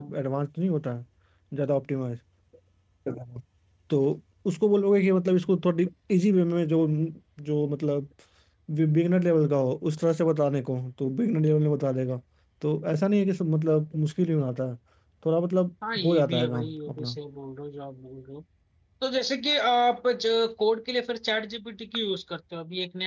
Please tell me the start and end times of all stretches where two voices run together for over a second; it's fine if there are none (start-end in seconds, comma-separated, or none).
15.9-17.2